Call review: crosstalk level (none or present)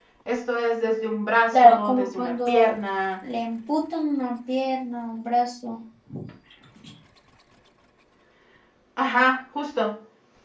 present